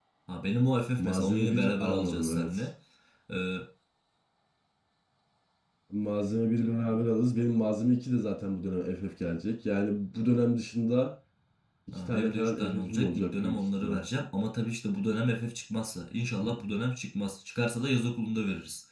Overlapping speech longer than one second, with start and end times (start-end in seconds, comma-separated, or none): 1.0-2.7, 12.1-14.0